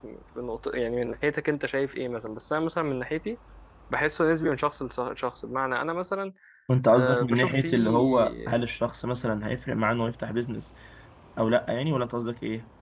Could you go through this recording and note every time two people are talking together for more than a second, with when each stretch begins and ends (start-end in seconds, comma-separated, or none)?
6.9-8.6